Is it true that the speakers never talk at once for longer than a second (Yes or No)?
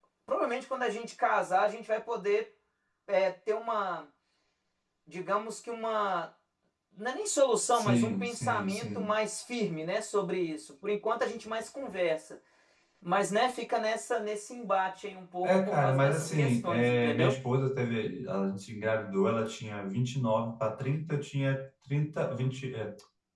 No